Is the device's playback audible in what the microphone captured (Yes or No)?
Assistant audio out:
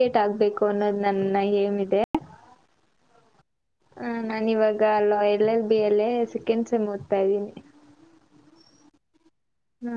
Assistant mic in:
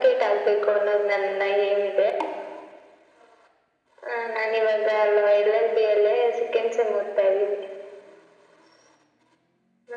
Yes